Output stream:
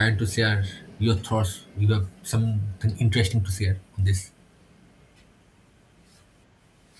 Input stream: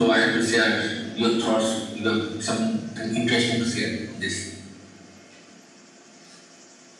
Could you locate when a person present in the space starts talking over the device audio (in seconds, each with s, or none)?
none